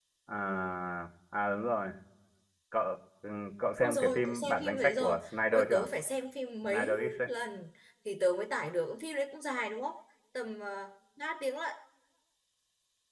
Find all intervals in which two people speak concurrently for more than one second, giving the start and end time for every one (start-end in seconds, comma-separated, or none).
3.8-5.9